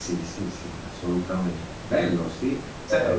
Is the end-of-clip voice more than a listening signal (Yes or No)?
No